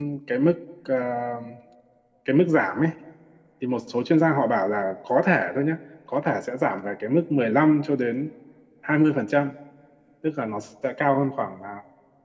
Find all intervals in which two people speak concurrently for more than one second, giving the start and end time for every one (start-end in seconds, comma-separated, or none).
none